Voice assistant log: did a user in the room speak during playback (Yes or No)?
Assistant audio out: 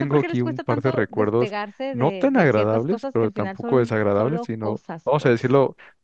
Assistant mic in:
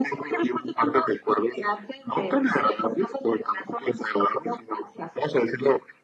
No